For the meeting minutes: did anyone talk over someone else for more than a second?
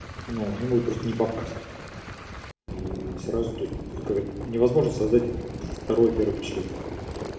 No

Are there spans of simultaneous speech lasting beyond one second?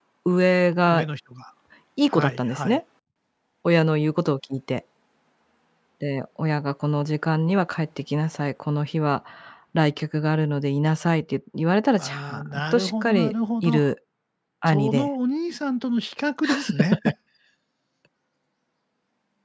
Yes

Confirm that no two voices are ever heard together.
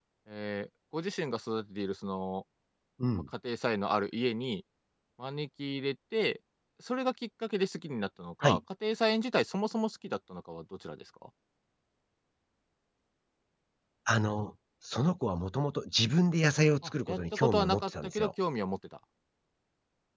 No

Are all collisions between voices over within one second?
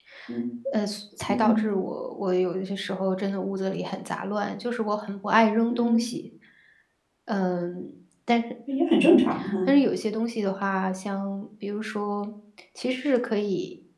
Yes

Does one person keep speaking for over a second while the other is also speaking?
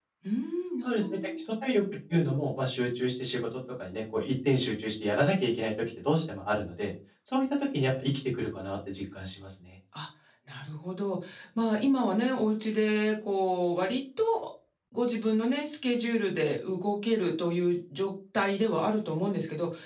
No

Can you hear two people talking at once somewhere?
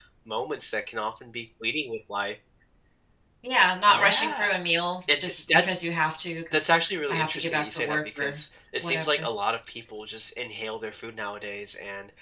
Yes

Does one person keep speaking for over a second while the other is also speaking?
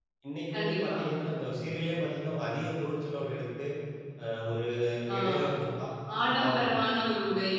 No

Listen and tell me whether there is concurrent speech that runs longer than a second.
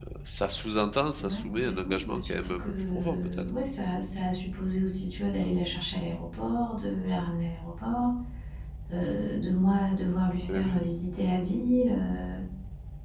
Yes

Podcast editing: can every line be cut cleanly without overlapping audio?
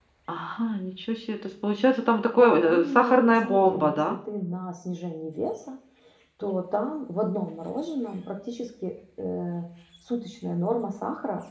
No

